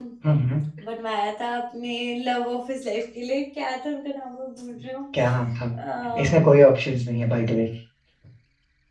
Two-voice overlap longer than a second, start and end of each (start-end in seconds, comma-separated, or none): none